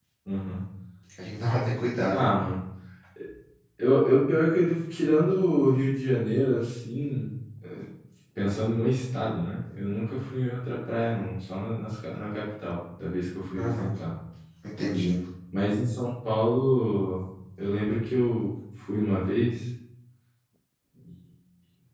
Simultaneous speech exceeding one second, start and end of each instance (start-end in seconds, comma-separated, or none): none